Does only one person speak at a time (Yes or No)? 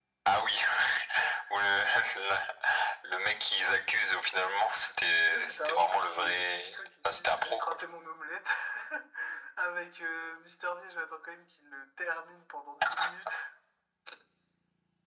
No